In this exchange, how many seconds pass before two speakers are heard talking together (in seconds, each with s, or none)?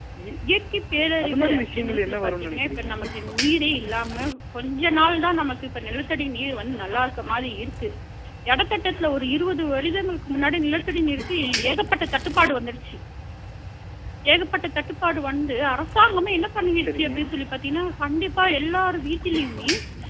1.2 s